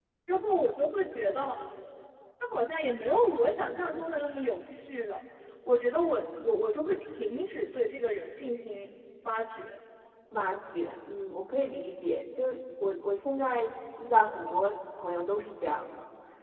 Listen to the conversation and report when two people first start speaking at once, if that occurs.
none

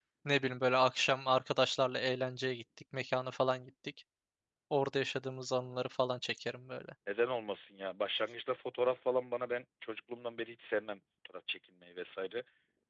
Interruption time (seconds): none

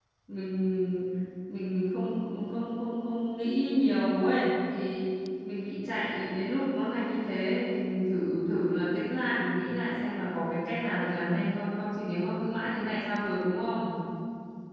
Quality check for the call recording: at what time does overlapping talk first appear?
none

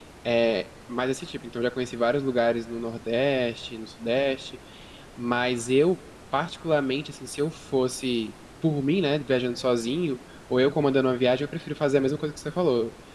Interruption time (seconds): none

